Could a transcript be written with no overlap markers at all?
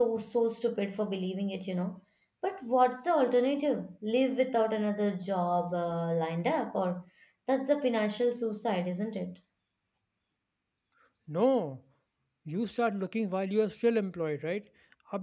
Yes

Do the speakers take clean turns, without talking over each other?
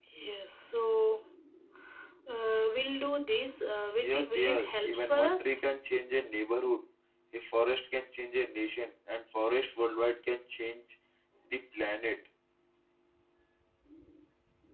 No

